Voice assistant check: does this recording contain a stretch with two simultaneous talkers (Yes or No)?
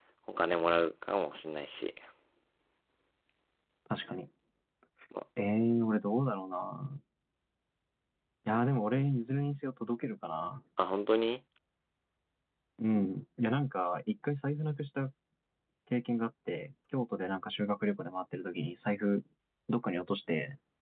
No